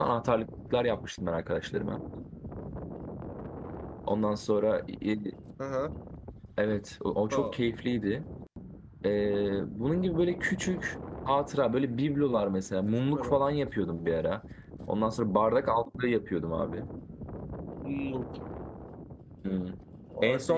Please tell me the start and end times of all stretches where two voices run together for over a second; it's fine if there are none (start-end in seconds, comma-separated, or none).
none